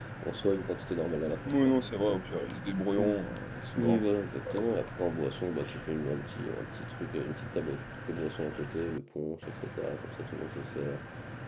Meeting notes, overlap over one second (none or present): none